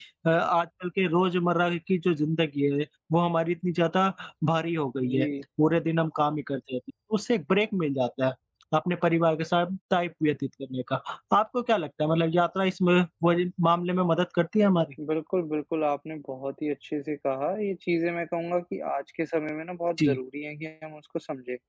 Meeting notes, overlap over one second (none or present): none